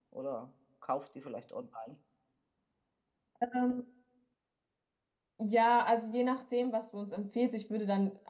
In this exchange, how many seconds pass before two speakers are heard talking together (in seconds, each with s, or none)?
none